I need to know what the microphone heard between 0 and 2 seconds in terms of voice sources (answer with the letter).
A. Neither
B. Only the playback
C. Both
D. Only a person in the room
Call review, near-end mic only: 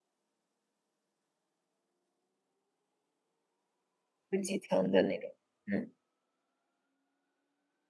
A